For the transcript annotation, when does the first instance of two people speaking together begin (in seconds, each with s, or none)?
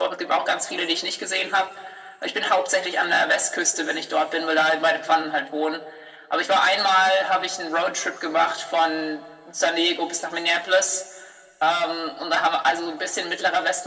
none